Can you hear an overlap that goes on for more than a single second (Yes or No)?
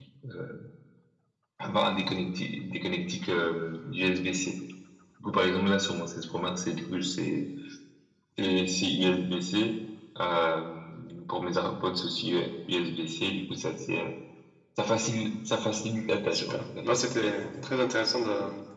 Yes